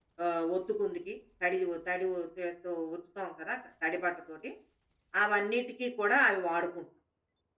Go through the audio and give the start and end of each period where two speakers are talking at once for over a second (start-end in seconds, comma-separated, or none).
none